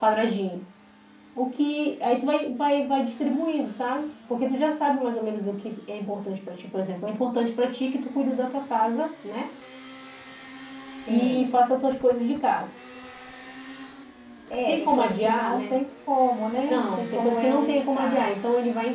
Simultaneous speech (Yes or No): Yes